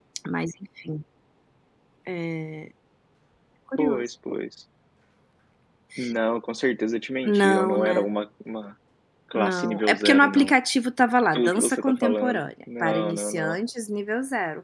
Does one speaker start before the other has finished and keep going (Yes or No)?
Yes